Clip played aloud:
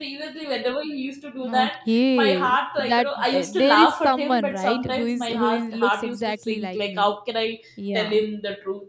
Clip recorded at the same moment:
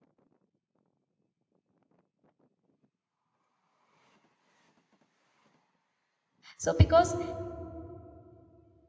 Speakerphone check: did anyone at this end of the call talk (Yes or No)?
Yes